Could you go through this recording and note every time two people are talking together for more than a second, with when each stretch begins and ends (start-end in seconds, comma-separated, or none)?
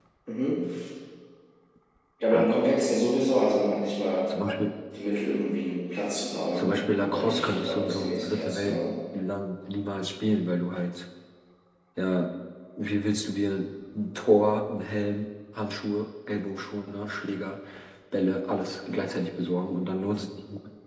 6.6-8.8